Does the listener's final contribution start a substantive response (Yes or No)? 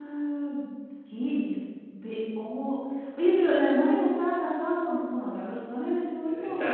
Yes